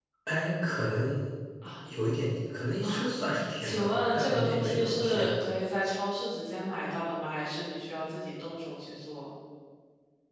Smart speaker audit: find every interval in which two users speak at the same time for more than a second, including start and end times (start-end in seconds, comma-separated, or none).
3.6-5.3